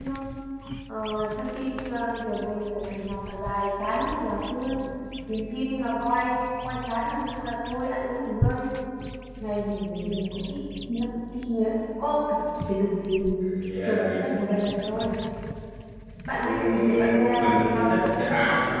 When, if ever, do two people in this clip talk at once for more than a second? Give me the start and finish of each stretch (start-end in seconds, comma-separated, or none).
16.4-18.0